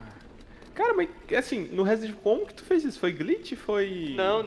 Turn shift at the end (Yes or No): Yes